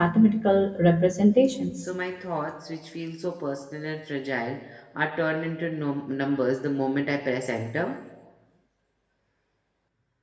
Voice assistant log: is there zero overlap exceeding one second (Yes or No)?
Yes